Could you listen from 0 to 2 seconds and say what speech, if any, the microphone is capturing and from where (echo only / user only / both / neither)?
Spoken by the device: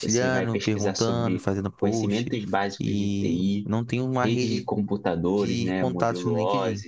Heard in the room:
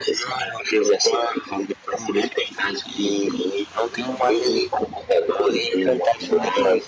echo only